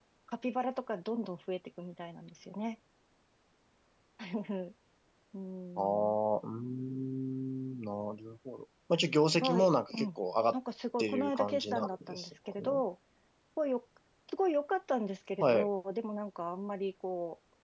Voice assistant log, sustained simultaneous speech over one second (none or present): present